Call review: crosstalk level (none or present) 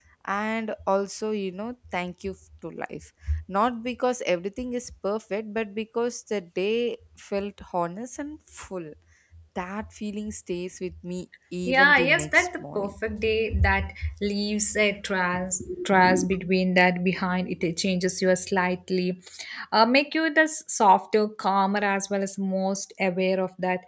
present